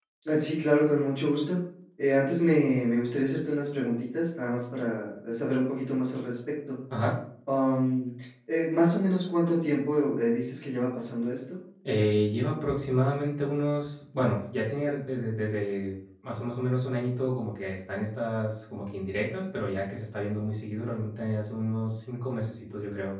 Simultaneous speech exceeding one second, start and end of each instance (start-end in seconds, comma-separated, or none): none